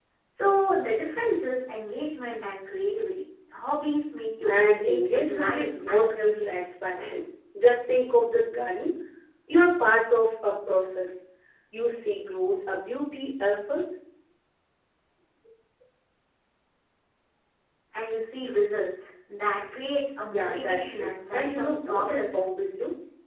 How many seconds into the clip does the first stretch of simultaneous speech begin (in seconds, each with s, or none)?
4.5 s